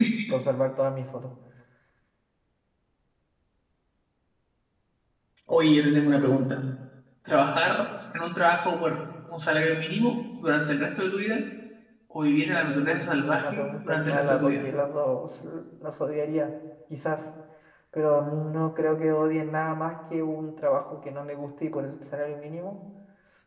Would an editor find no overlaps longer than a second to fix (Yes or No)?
No